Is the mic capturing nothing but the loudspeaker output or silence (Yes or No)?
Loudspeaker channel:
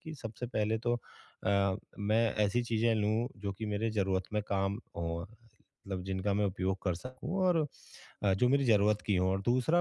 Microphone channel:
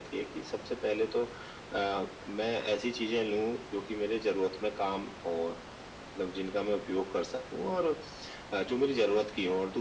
Yes